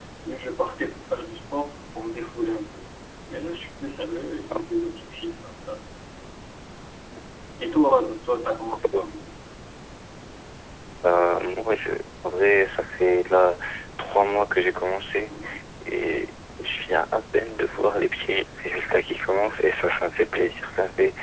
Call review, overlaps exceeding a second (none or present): none